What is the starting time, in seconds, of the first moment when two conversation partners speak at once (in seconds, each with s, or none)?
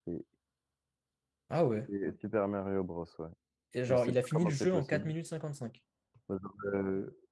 3.9 s